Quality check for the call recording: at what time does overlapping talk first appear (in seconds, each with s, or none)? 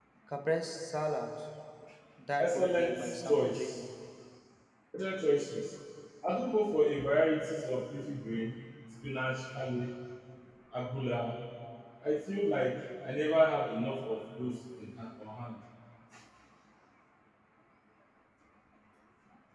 2.4 s